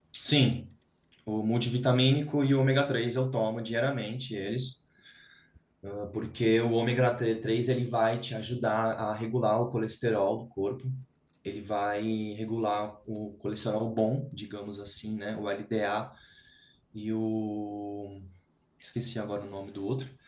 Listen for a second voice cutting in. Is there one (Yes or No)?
No